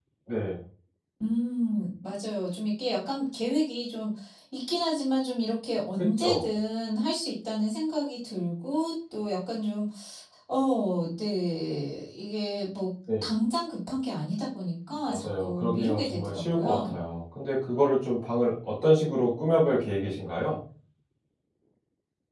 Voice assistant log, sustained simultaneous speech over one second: present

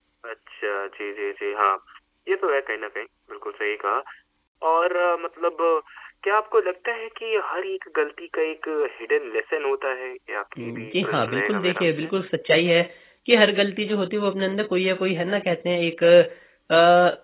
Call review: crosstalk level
present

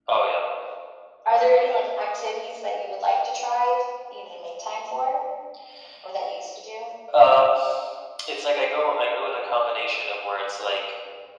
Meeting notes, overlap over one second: none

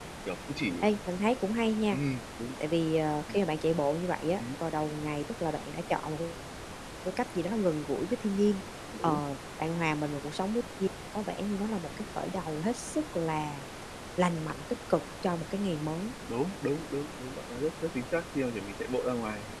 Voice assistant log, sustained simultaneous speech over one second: none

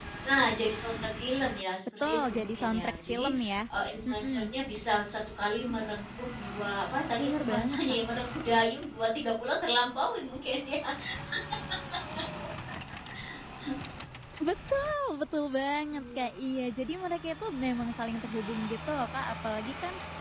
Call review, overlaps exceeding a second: present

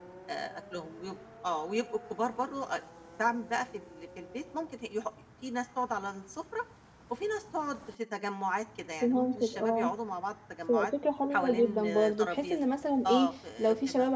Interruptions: present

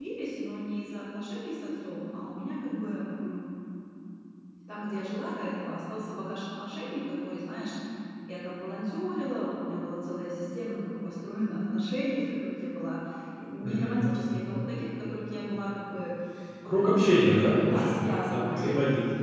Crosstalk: present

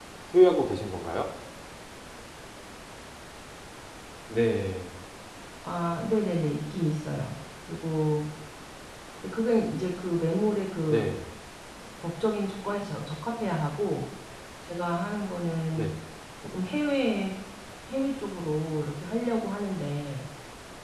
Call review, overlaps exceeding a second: none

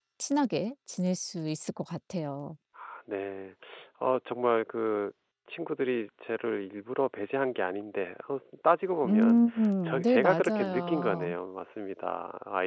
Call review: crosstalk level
present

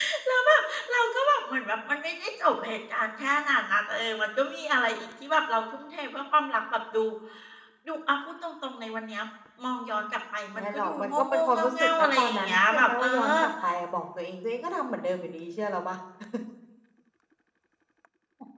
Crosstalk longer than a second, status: present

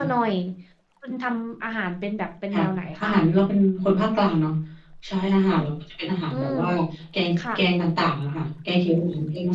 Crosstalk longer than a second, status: none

